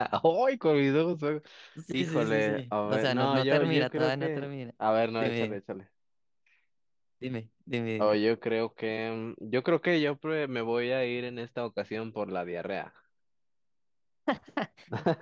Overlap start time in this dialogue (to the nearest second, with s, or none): 2 s